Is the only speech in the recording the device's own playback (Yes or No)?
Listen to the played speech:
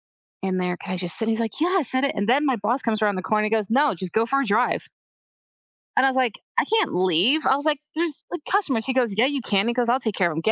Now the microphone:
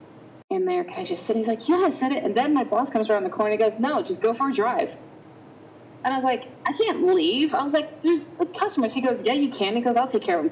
Yes